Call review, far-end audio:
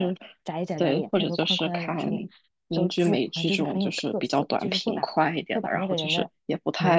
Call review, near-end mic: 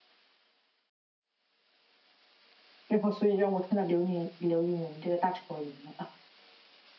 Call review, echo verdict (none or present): none